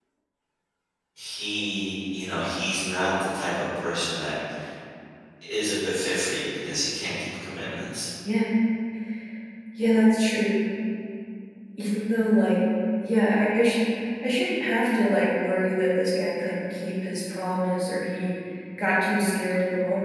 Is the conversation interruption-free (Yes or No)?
Yes